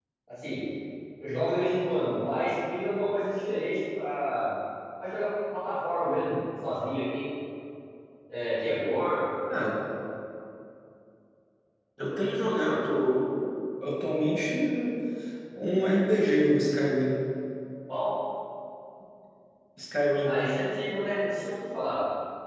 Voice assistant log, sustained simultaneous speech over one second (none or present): none